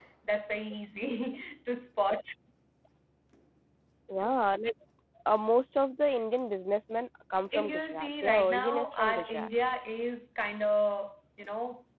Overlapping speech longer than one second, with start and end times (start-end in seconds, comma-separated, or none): 7.6-9.5